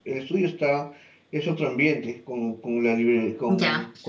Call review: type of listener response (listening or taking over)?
taking over